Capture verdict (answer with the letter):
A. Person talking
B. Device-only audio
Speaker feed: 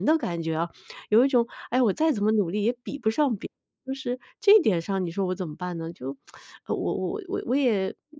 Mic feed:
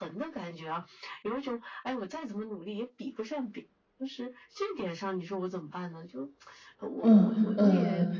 A